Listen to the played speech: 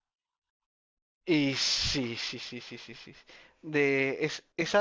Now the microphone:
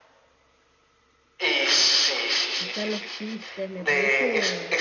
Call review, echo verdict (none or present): present